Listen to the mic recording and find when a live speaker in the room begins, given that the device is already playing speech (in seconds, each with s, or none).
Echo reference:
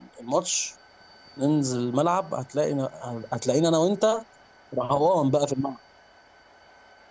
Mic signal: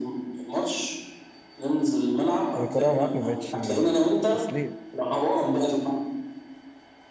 2.6 s